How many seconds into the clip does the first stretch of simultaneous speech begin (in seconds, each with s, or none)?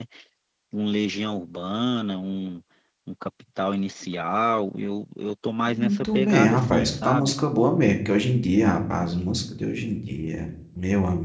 5.7 s